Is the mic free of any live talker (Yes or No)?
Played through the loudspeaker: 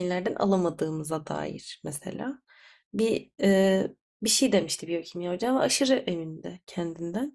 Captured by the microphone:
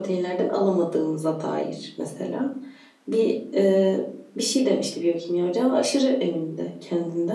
Yes